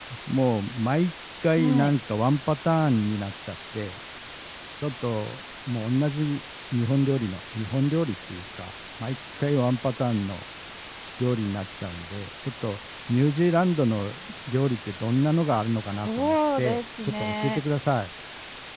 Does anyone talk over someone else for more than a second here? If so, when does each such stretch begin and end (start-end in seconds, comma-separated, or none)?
15.8-17.6